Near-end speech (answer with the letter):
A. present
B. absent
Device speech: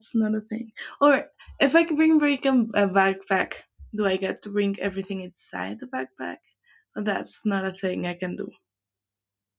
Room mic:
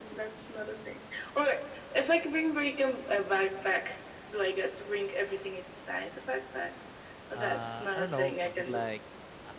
A